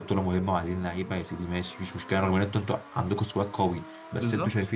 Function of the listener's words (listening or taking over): listening